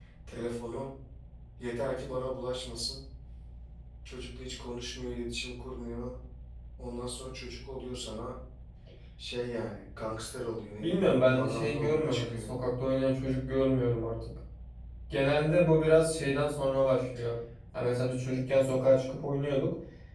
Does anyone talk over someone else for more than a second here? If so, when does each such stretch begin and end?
10.8-12.5

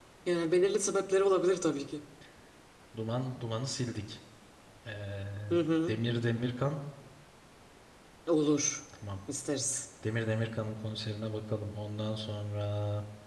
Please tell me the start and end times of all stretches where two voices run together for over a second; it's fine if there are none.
none

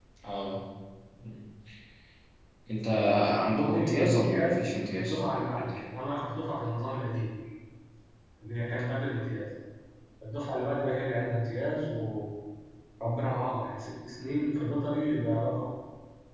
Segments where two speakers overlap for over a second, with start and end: 3.7-5.8

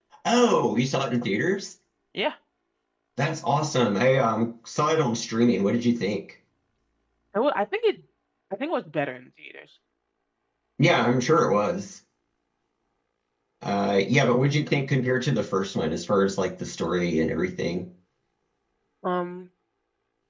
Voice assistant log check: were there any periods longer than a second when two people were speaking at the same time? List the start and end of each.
none

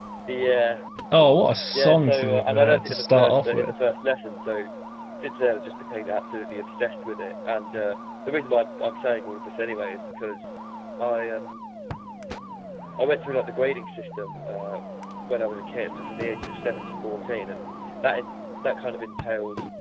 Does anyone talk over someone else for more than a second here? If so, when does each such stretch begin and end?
1.7-3.7

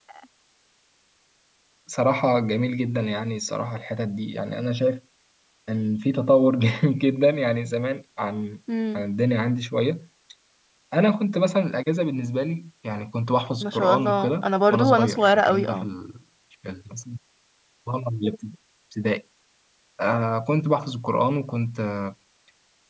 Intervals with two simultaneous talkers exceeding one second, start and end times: 13.6-15.9

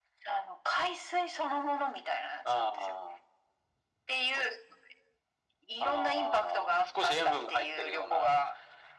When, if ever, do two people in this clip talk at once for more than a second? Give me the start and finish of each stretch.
5.8-8.3

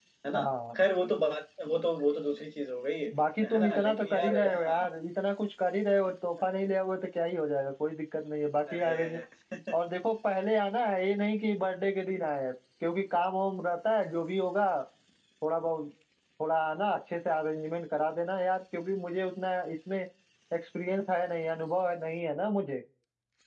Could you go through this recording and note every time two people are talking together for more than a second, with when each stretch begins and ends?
3.4-4.8

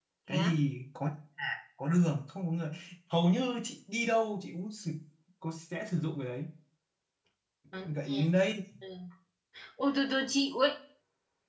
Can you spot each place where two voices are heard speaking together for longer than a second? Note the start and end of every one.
none

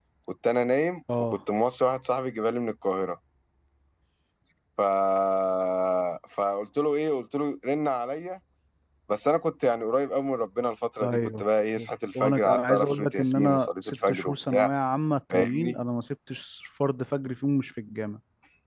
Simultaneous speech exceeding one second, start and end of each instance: 12.2-14.7

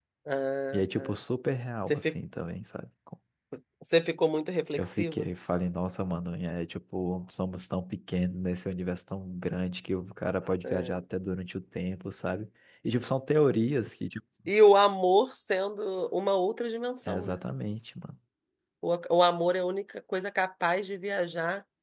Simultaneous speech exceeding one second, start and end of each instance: none

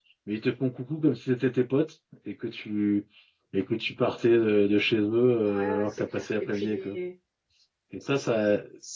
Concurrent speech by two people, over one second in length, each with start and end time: 5.5-7.0

